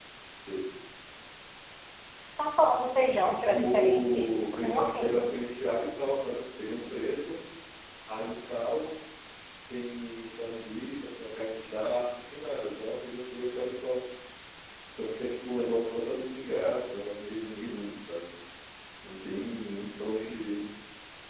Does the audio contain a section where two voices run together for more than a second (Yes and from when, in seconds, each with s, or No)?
Yes, from 3.5 s